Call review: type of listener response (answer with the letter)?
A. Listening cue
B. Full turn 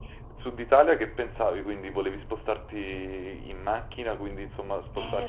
B